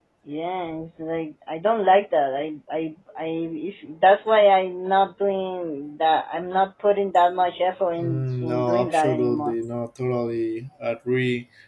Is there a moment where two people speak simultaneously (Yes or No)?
Yes